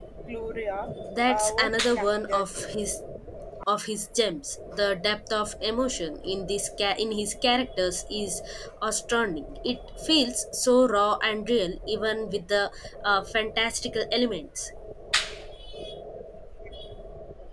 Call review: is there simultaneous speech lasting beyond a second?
Yes, from 1.3 s

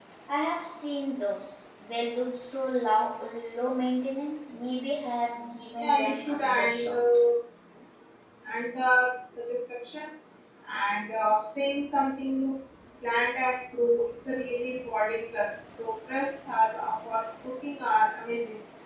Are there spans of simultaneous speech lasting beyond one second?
Yes, from 5.8 s

